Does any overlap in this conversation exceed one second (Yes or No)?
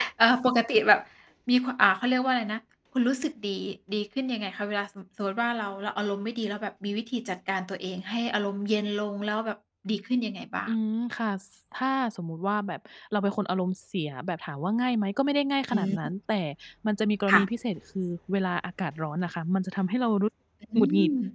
No